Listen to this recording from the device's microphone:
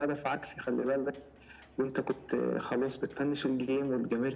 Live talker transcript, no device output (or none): none